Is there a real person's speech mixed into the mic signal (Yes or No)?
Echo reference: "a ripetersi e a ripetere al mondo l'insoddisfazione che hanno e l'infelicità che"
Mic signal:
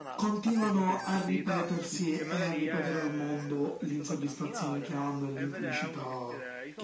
Yes